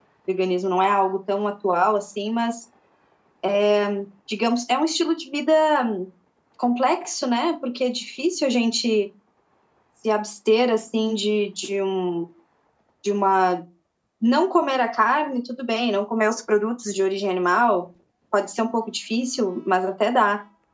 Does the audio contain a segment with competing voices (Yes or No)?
No